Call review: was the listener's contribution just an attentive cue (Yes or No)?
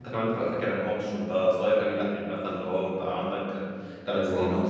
Yes